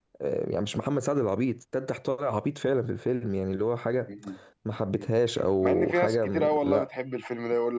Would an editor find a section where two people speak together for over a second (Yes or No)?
Yes